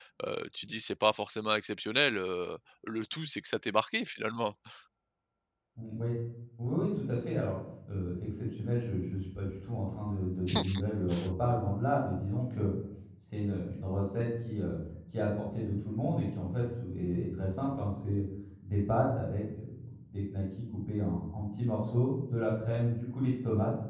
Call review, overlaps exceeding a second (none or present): none